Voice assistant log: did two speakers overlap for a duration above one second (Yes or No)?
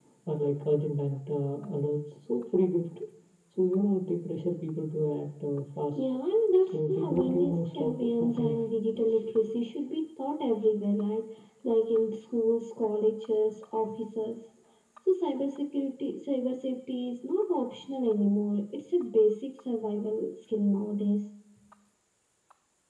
Yes